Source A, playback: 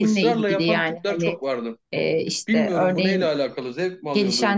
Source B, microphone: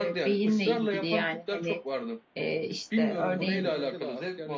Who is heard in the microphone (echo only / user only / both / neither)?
both